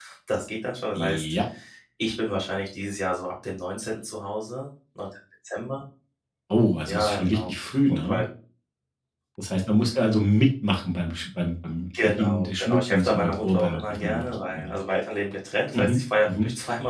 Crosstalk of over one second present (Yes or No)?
Yes